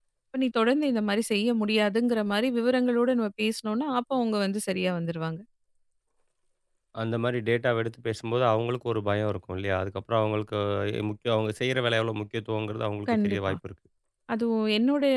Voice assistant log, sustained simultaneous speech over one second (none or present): none